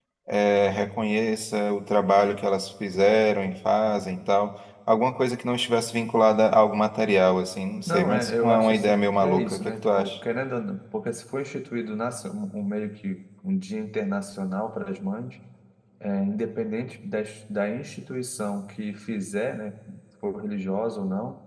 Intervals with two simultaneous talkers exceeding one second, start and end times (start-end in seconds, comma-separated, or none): 7.9-10.2